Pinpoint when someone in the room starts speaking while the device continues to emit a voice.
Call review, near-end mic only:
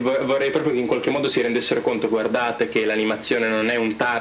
none

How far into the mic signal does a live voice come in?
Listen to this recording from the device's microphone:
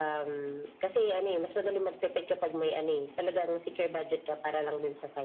none

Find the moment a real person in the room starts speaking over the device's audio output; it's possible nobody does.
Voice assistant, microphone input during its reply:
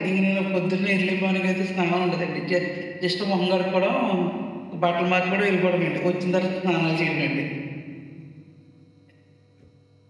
none

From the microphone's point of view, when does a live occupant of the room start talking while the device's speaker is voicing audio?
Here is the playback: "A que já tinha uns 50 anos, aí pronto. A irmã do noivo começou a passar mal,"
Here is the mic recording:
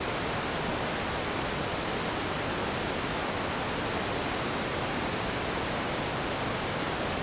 none

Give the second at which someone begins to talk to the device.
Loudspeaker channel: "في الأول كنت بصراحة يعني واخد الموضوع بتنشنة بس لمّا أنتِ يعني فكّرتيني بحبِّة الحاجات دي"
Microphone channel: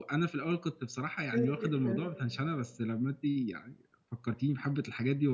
1 s

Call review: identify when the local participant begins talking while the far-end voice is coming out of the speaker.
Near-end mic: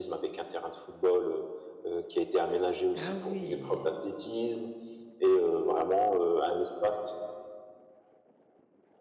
3 s

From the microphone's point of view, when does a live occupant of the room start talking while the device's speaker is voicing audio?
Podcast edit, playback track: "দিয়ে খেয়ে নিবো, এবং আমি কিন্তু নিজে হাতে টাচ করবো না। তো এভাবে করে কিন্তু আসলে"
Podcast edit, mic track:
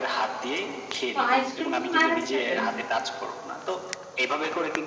1 s

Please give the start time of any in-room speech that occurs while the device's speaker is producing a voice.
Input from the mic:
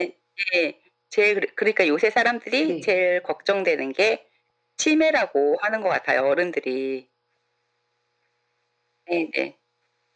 3 s

